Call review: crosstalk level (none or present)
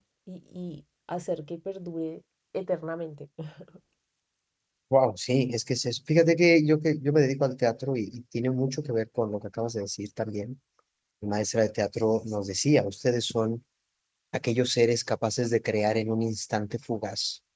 none